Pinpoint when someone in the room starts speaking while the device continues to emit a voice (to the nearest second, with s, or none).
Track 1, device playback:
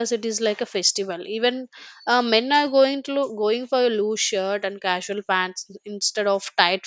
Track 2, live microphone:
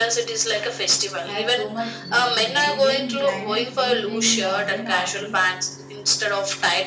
1 s